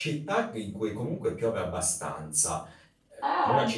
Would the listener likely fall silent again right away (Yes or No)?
Yes